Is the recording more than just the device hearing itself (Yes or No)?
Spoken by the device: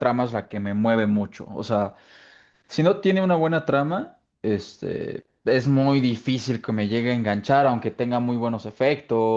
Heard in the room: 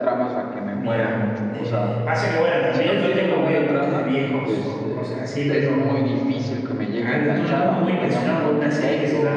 Yes